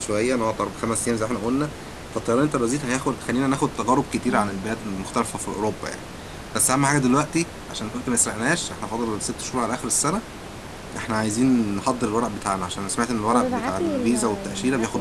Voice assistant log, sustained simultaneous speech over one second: present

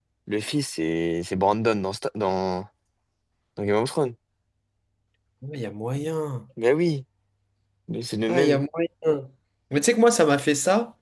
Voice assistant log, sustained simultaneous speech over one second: none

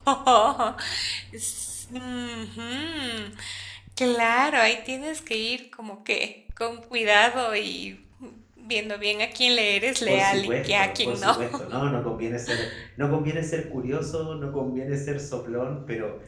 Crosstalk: present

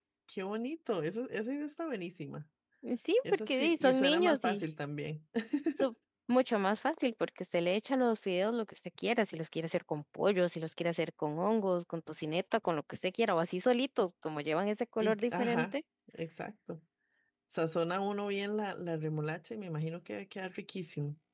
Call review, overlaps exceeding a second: present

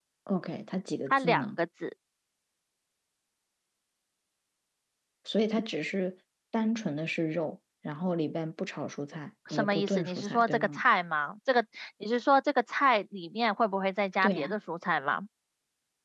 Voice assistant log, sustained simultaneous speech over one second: present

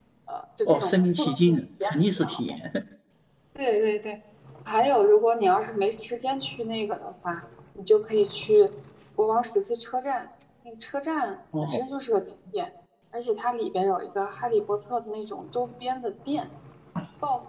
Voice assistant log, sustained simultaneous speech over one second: present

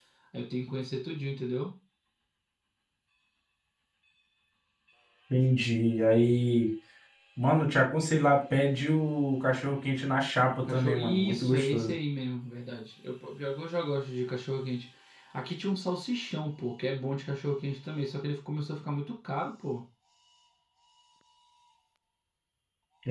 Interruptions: present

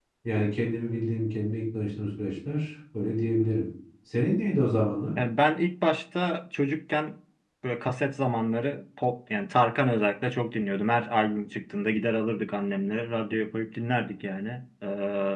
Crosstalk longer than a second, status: none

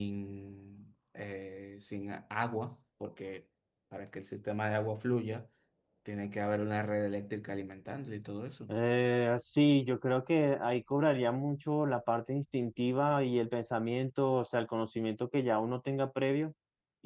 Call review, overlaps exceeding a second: none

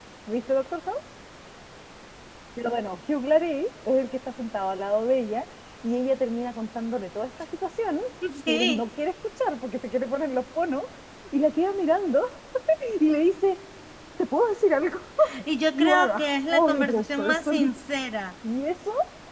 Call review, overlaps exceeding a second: present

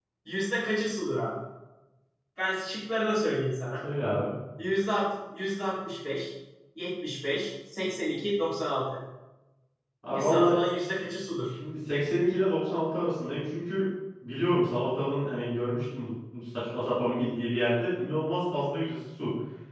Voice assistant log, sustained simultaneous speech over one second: none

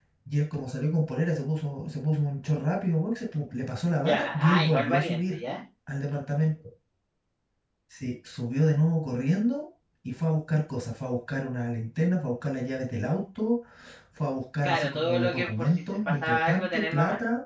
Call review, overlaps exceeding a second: present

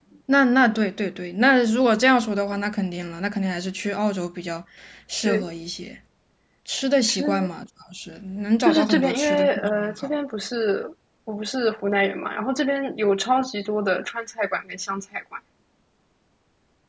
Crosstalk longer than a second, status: present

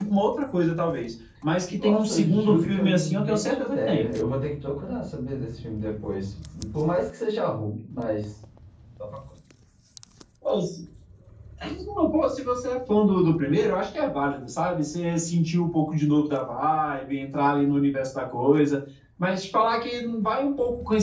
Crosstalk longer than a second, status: present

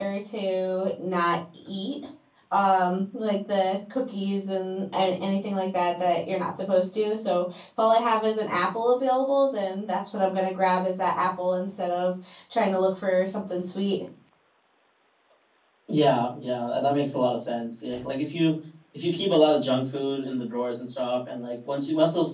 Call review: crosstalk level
none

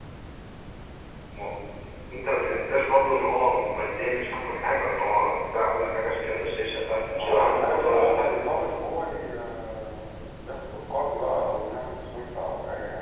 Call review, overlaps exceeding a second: present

